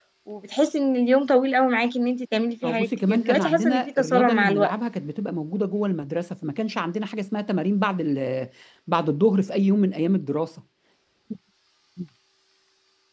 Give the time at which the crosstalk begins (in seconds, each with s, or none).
2.6 s